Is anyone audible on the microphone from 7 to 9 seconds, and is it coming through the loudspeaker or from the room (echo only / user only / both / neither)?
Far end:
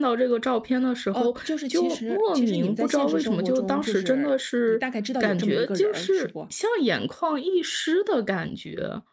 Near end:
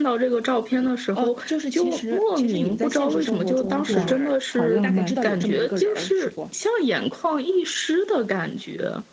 echo only